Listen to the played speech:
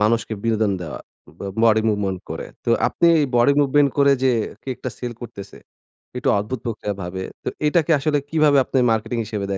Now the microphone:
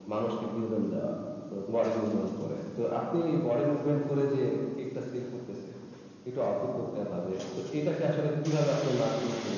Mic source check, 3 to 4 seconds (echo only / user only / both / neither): echo only